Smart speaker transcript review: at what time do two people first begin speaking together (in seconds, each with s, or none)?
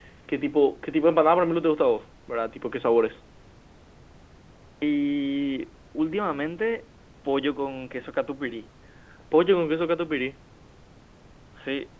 none